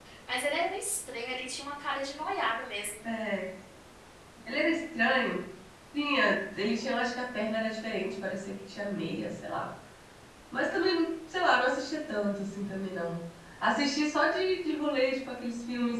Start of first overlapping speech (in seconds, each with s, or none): none